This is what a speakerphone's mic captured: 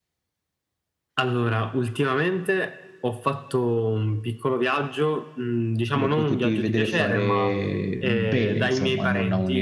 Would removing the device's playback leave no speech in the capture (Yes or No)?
No